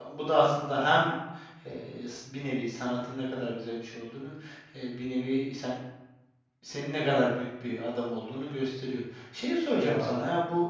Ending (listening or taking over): listening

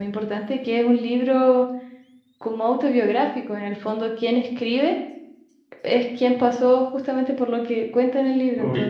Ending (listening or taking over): taking over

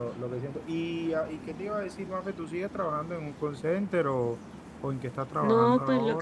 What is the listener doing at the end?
taking over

